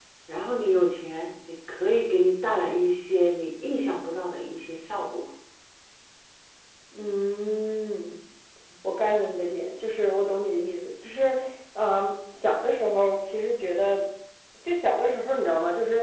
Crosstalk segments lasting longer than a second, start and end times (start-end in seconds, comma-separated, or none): none